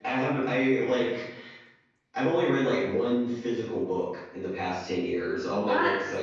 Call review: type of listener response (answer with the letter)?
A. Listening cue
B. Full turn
A